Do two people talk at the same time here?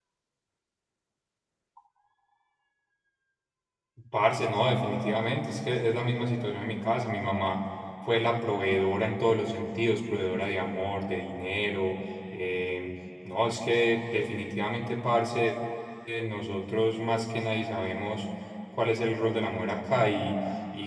No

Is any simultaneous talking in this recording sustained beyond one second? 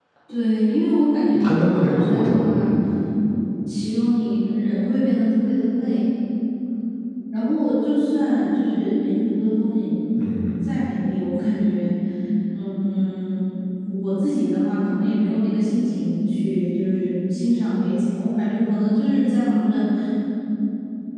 Yes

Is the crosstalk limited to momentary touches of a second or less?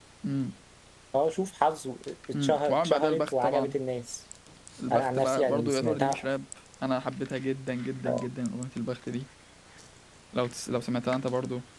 No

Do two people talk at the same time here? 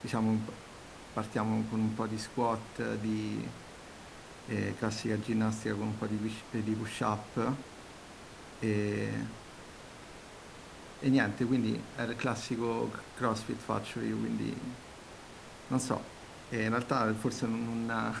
No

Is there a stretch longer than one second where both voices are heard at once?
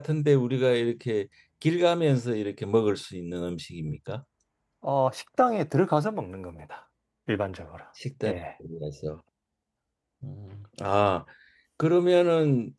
No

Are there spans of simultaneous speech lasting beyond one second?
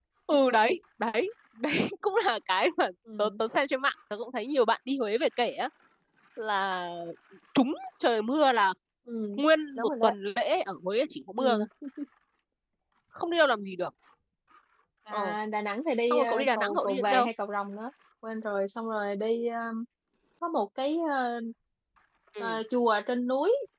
Yes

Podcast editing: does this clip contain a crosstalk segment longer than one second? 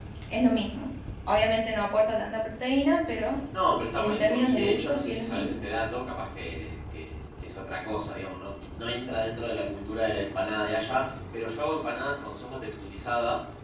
Yes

